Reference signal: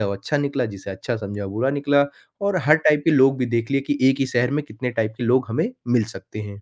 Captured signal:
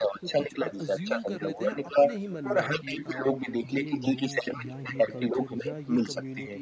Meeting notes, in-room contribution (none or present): present